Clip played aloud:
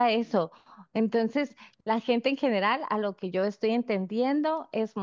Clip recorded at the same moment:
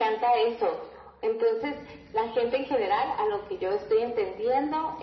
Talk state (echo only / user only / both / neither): echo only